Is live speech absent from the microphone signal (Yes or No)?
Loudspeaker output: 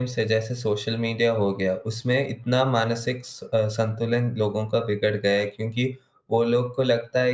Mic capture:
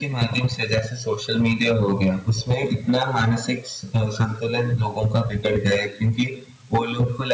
Yes